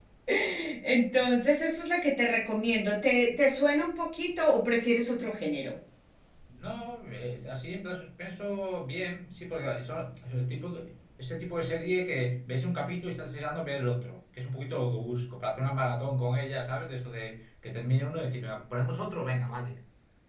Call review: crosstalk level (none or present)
none